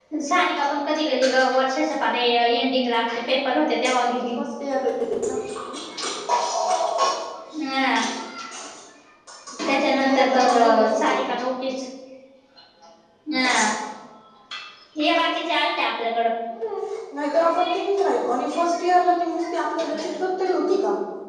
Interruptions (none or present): present